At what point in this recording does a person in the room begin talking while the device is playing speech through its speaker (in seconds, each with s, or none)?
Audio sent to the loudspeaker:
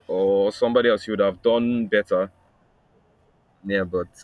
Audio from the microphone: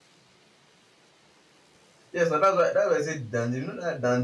2.1 s